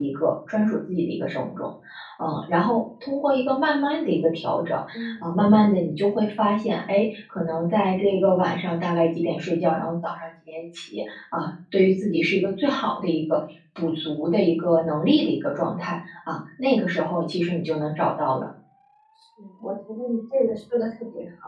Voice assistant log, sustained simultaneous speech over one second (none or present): none